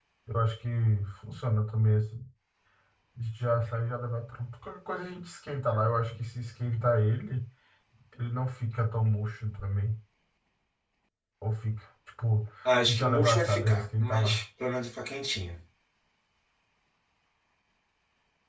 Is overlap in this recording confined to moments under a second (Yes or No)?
No